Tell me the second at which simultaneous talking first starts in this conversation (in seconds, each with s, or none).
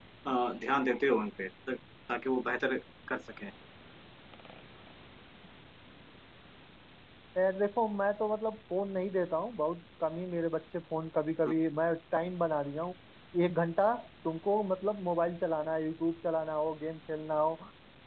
none